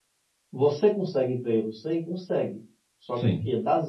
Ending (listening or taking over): listening